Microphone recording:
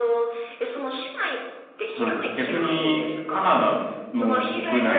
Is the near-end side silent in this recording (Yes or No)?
No